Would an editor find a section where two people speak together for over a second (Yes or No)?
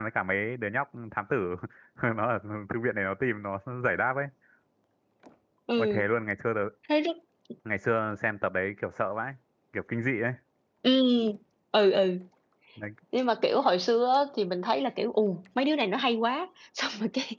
No